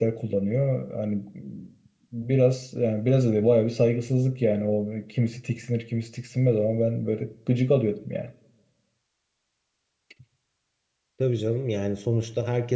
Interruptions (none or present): none